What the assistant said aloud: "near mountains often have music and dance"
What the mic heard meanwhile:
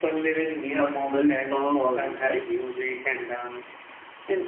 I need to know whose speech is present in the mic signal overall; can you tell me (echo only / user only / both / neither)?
both